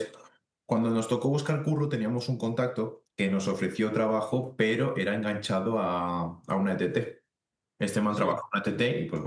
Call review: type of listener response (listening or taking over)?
listening